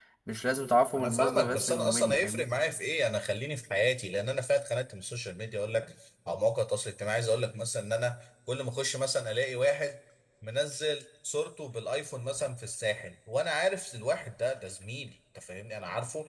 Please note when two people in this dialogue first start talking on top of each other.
1.0 s

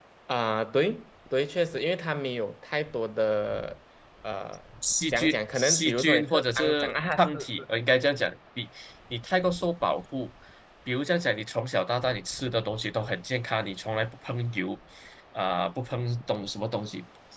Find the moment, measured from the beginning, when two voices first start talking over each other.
5.1 s

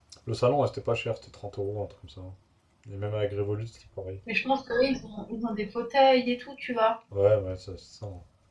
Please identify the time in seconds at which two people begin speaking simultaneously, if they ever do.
none

